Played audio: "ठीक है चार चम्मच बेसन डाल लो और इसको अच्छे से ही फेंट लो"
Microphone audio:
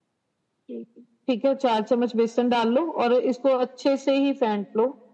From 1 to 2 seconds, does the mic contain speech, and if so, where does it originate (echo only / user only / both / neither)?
echo only